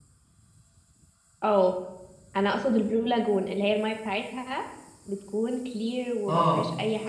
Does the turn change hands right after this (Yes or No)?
Yes